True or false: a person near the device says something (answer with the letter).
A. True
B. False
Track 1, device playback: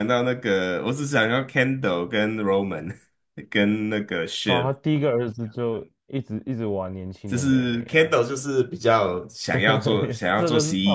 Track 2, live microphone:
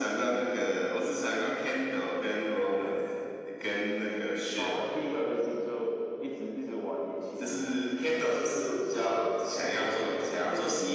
B